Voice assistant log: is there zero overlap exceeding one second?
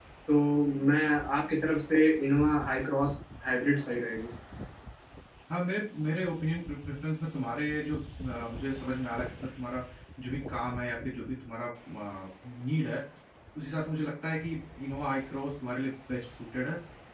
Yes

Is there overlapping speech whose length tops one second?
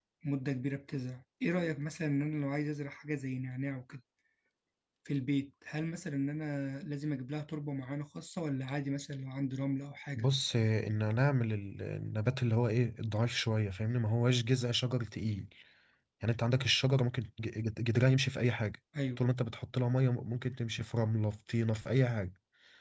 No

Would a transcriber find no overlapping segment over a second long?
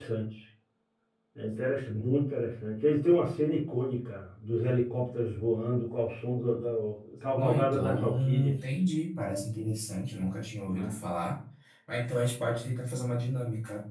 No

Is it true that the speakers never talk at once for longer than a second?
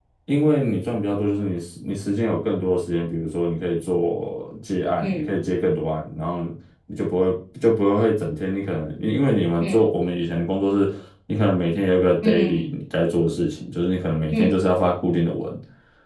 Yes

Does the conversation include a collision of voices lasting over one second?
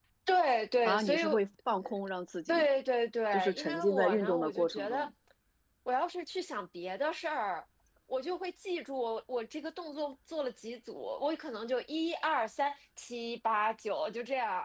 Yes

